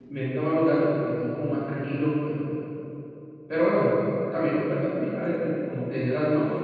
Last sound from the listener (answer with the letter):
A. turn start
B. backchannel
A